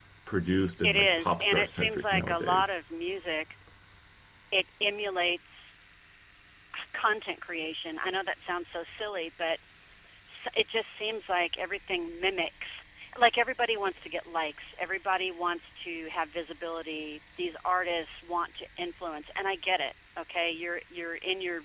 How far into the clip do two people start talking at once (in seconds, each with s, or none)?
0.8 s